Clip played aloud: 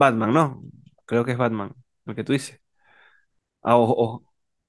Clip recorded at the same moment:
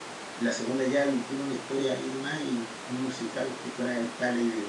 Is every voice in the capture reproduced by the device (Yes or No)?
No